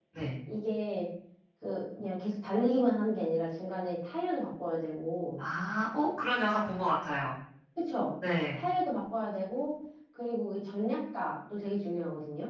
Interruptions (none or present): none